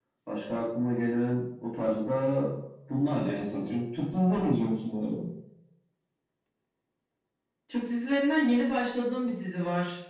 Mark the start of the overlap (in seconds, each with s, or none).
none